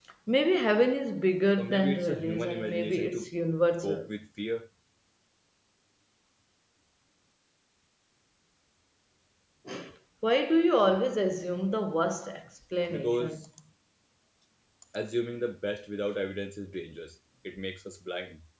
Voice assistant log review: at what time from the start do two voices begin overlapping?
1.6 s

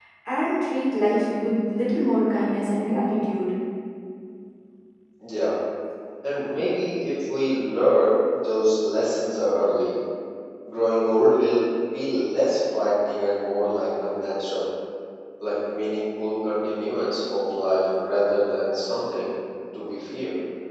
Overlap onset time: none

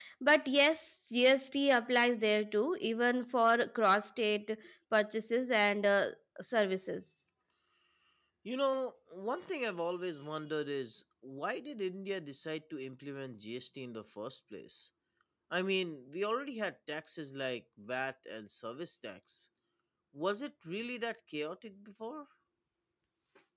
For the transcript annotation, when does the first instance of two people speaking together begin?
none

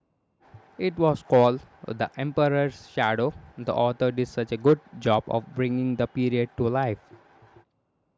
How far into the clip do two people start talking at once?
none

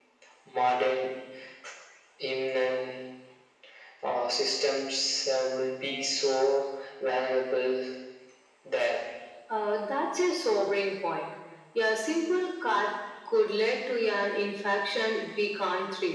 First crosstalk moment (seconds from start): none

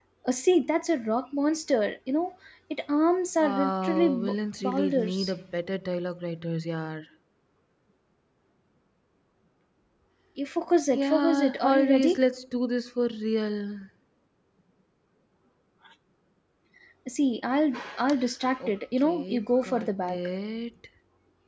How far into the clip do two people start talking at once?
3.4 s

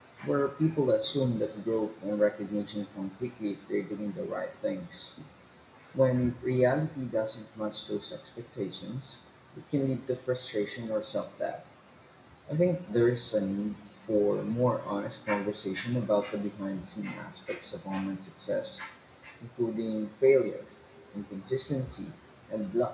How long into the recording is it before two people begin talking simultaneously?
none

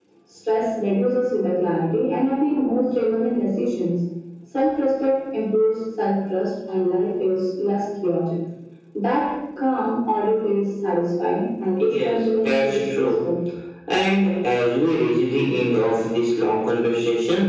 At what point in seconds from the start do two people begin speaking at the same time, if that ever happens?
11.8 s

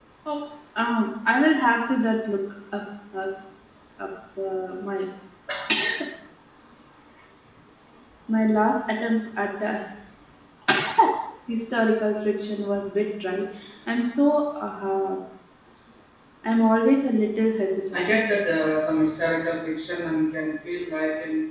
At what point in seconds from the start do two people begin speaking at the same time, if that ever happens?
none

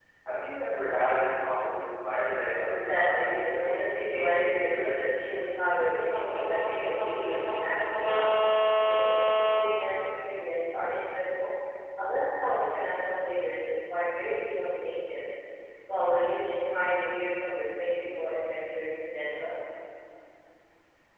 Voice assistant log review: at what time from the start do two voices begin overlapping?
2.8 s

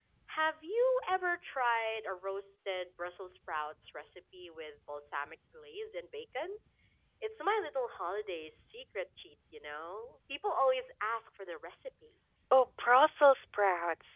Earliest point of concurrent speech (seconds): none

